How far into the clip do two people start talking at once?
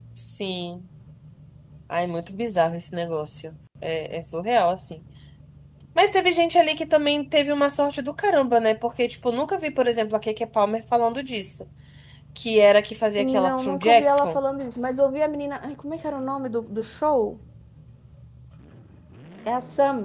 13.2 s

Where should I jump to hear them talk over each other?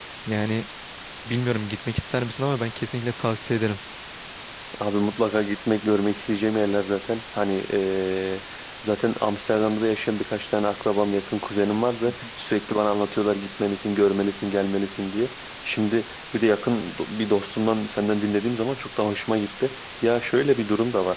none

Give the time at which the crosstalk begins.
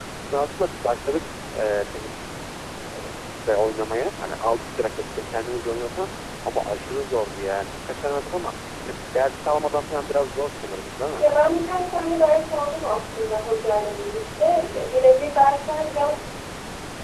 none

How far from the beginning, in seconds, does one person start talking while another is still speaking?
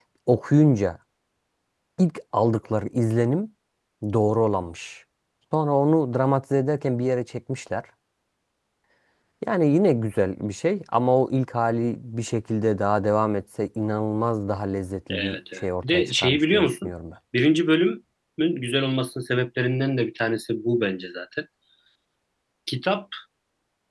15.1 s

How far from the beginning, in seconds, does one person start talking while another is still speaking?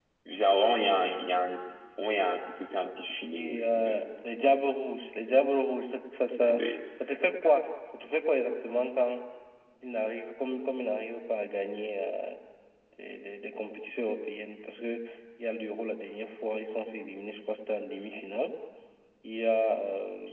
3.3 s

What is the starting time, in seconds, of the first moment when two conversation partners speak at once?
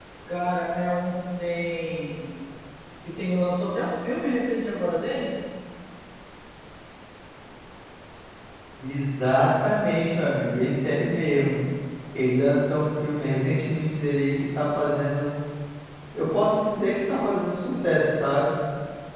none

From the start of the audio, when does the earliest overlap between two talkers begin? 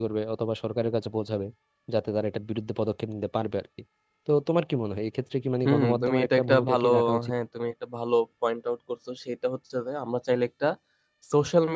5.6 s

